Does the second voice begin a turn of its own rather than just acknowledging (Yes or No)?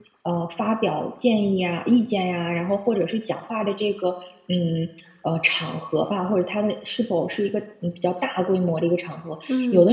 No